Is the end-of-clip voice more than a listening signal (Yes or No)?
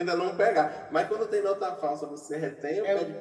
No